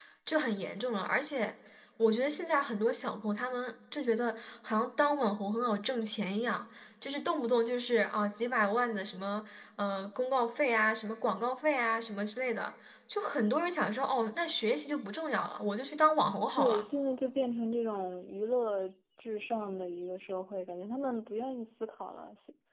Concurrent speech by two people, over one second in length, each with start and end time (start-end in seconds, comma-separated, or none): none